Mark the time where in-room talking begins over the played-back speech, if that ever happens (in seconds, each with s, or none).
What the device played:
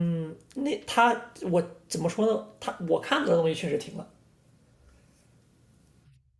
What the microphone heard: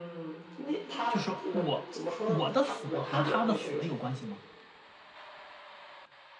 1.1 s